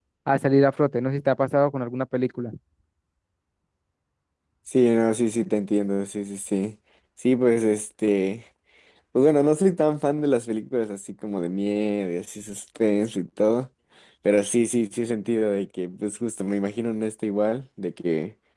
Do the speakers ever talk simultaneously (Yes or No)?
No